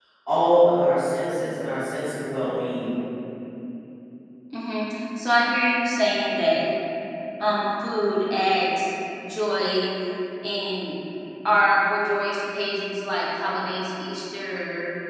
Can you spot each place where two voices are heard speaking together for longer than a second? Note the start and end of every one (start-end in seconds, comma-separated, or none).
none